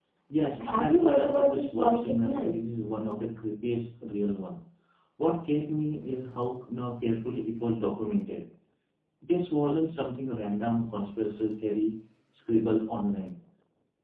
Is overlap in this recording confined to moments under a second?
No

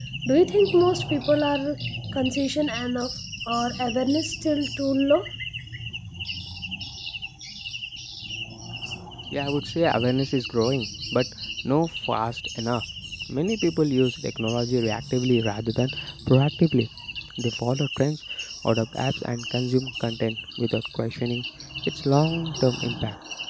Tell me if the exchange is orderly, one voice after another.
Yes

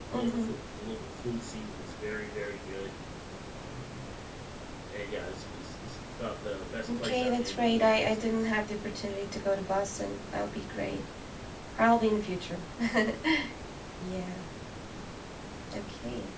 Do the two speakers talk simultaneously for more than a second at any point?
Yes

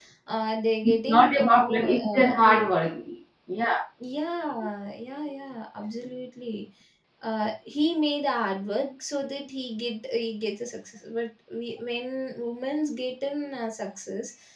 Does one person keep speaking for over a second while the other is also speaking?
Yes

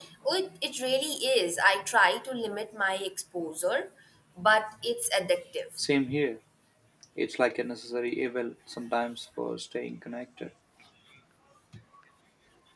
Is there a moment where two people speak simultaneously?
No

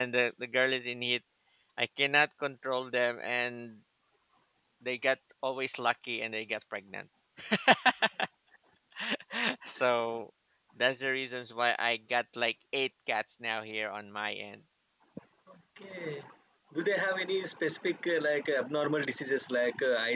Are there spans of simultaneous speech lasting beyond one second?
No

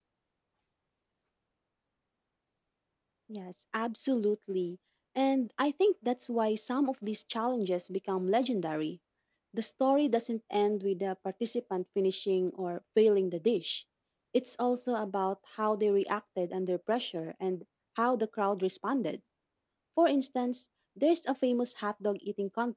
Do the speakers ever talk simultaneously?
No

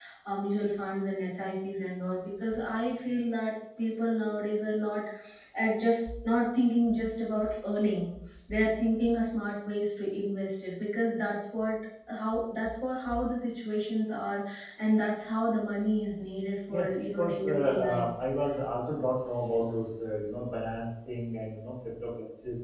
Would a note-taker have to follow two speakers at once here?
Yes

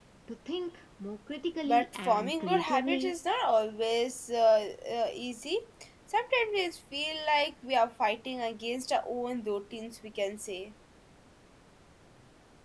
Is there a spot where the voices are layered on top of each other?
Yes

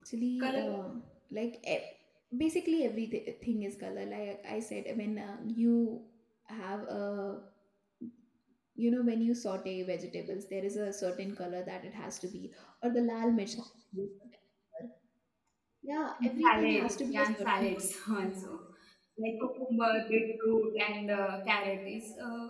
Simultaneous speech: Yes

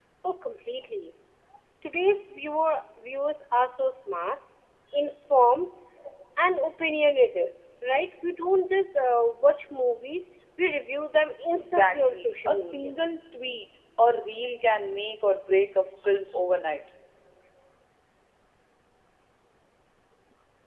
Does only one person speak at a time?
No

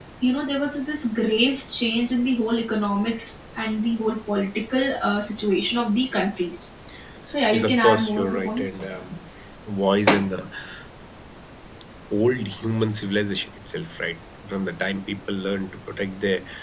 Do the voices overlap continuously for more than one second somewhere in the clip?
Yes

